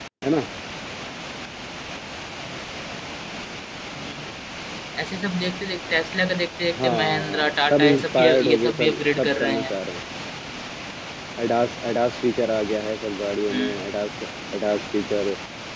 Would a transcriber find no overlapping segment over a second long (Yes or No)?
No